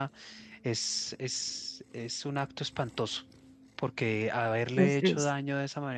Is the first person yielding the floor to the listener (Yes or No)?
No